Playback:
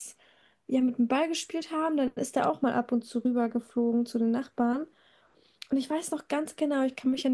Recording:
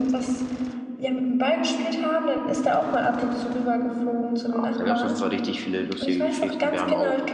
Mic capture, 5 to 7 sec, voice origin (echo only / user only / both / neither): both